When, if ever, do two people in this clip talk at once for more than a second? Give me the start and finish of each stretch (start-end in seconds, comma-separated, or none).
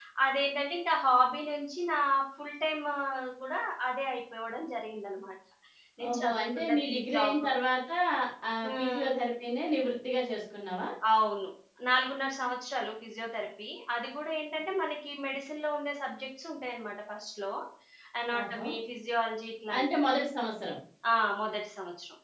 6.1-7.4